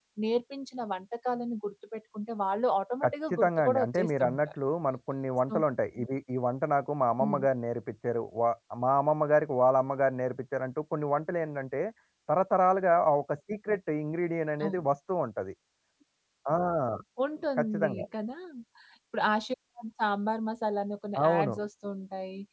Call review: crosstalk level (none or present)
present